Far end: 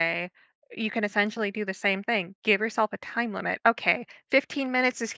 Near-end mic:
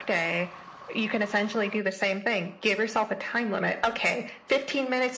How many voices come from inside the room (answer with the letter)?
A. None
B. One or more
A